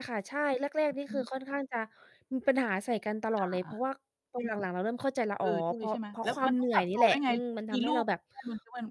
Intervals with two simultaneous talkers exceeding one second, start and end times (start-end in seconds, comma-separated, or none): 5.4-7.3